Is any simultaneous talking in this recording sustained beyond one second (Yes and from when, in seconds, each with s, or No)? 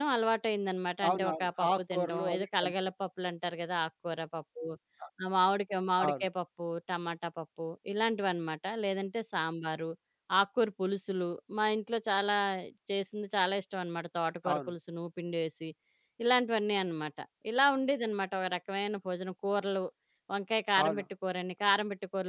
Yes, from 1.1 s